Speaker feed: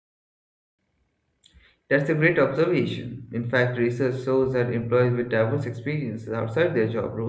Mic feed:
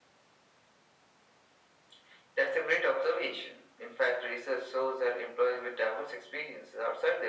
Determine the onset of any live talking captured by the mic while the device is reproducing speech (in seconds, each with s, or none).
none